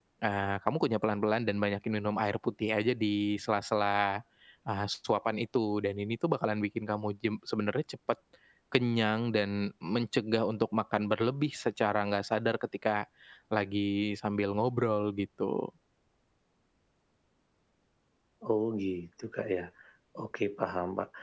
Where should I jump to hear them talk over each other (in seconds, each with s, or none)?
none